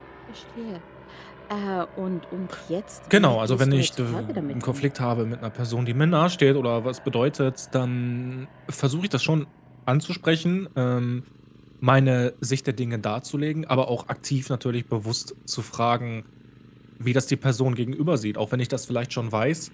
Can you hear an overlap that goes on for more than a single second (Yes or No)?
Yes